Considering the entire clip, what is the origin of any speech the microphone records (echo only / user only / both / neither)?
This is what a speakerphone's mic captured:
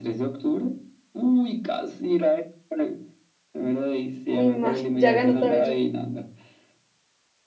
both